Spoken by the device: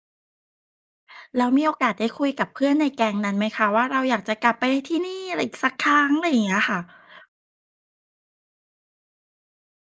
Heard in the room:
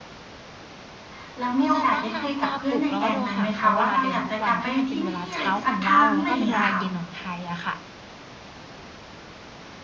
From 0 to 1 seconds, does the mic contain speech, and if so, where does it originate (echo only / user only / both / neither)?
neither